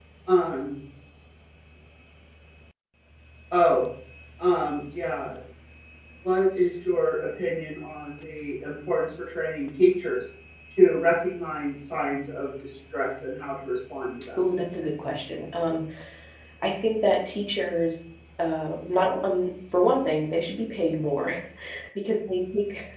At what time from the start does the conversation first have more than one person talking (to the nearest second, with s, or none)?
none